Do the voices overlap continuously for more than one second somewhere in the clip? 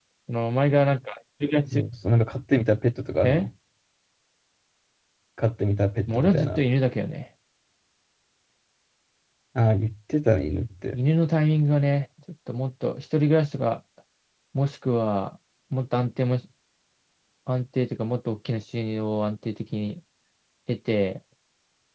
No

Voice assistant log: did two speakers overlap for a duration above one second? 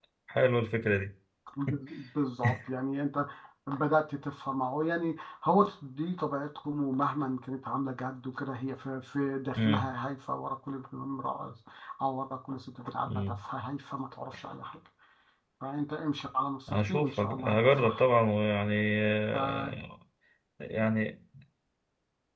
Yes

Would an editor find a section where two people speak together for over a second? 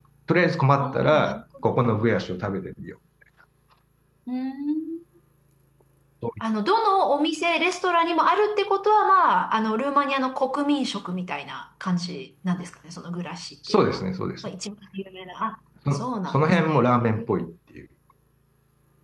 Yes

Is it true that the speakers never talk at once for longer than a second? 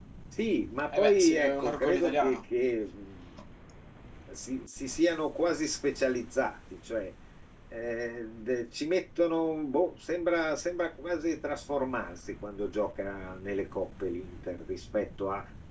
No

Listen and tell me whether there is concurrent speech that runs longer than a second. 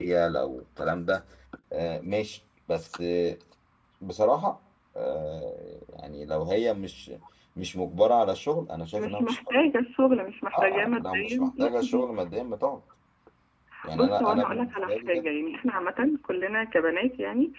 Yes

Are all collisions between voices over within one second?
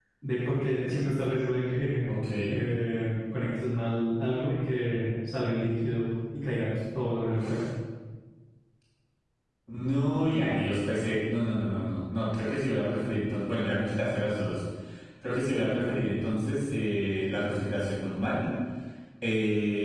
Yes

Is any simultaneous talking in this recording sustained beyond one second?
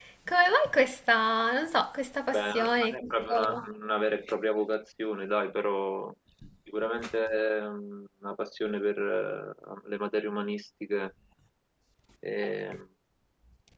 Yes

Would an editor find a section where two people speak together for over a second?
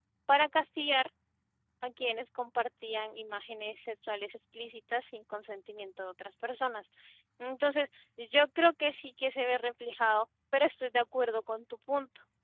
No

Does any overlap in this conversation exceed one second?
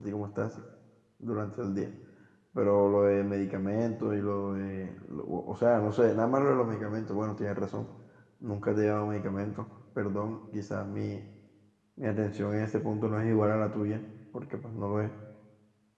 No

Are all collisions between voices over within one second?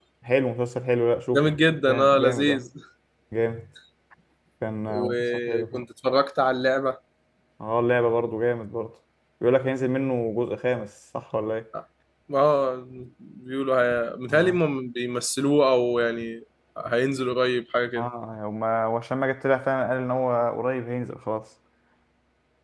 No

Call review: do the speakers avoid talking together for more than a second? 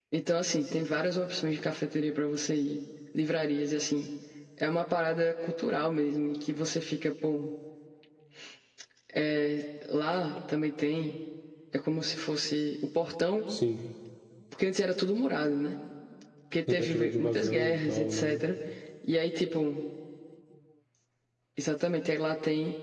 No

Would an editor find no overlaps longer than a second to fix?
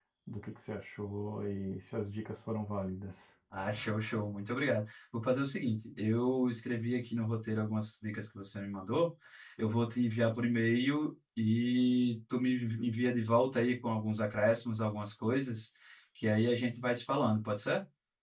Yes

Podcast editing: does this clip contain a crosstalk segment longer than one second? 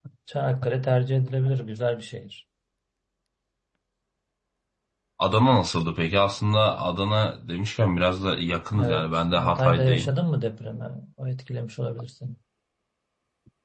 Yes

